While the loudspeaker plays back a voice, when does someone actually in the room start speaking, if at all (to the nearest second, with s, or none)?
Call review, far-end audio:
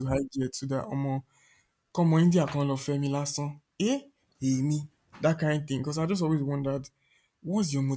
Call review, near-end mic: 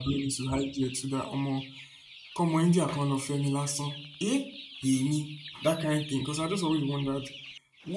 none